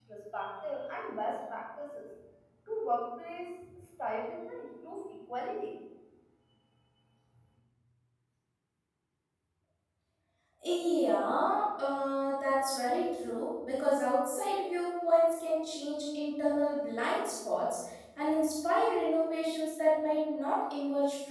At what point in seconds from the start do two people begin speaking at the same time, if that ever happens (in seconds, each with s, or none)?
none